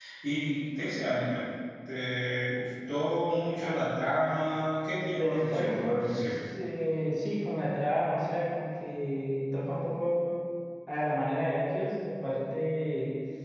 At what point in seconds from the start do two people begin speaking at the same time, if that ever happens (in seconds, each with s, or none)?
5.2 s